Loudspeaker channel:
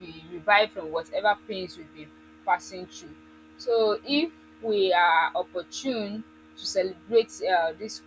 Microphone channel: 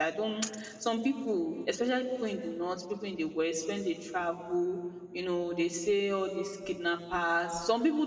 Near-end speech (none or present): present